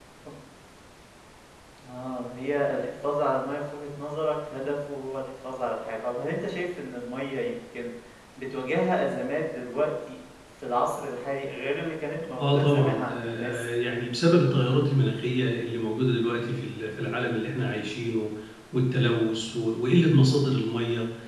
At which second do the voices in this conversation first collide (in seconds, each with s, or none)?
12.3 s